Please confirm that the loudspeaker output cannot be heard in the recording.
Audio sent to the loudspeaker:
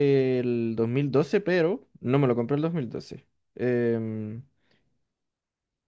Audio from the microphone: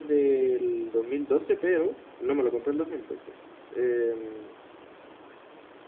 No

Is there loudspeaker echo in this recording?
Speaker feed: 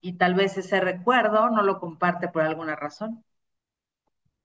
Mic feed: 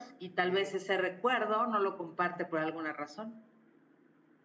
Yes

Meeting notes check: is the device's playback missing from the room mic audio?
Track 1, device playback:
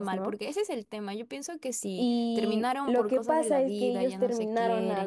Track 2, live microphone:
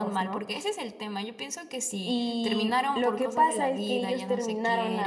No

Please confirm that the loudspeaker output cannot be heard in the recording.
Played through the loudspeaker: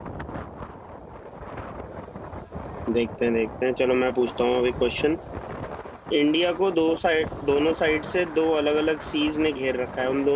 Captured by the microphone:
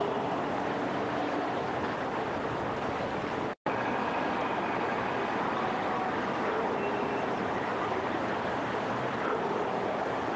Yes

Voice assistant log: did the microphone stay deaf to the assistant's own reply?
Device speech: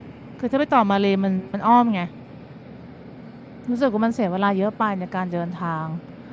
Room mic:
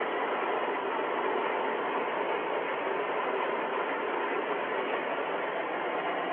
Yes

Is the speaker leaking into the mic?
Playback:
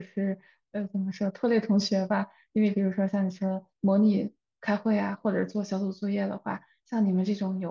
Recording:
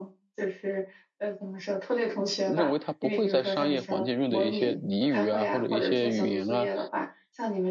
Yes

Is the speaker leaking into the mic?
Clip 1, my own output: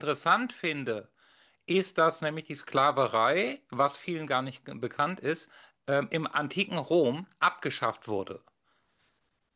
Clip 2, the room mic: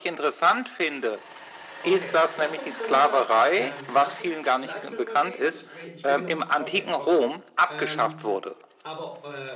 Yes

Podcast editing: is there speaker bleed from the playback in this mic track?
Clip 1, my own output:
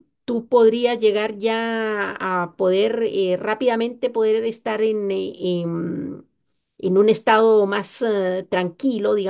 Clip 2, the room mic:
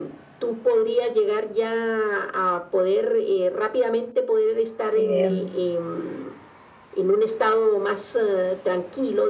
Yes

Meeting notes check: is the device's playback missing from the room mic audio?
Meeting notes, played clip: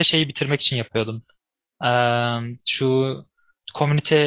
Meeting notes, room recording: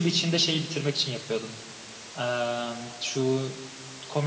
No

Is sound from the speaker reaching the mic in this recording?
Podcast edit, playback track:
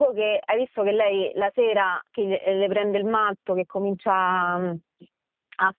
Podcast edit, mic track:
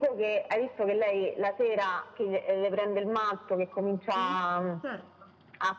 Yes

